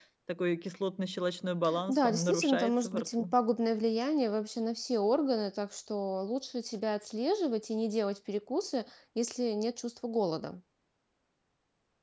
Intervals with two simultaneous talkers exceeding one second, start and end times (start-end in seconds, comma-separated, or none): 1.9-3.3